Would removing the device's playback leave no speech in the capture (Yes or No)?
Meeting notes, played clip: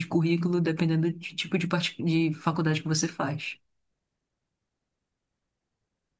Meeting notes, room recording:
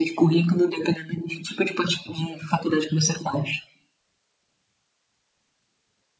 Yes